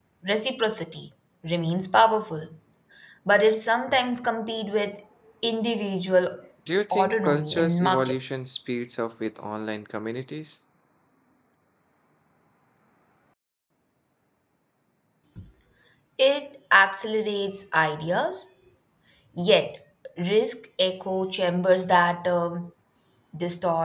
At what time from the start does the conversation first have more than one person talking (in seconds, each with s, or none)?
6.9 s